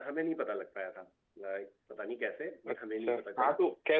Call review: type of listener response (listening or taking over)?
taking over